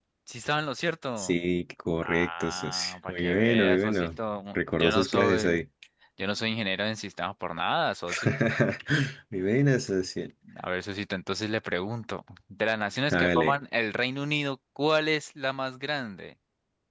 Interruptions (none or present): present